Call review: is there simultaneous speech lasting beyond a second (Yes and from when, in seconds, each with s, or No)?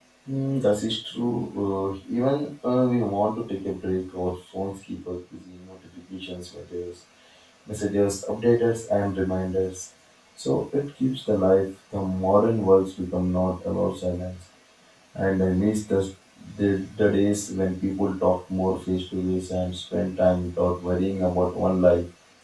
No